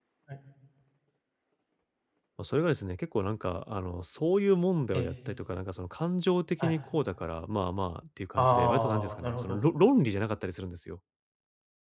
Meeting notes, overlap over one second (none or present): present